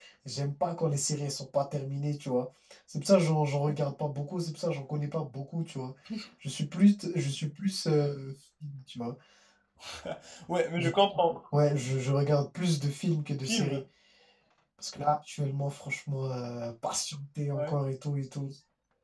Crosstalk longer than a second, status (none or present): none